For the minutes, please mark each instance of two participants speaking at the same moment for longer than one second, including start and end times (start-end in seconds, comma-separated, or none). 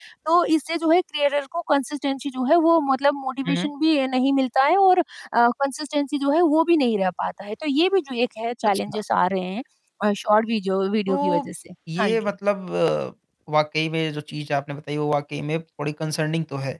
none